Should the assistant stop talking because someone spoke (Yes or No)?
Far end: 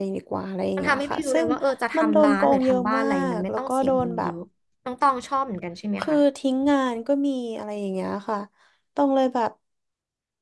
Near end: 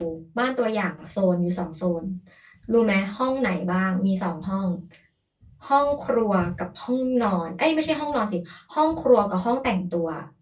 Yes